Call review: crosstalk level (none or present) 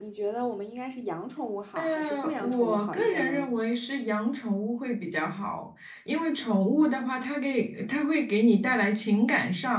present